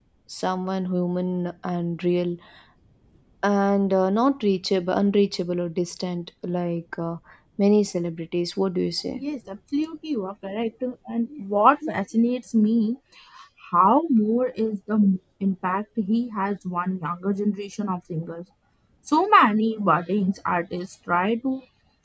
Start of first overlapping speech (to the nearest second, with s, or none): none